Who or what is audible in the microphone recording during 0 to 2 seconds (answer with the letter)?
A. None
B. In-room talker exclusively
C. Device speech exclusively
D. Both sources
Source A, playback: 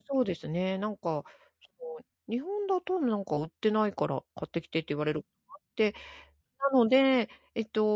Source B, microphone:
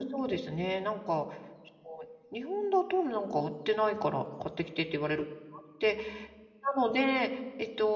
C